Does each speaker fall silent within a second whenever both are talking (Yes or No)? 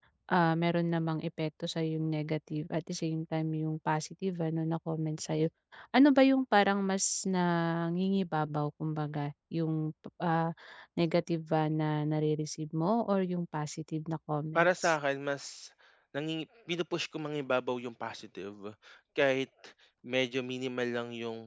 Yes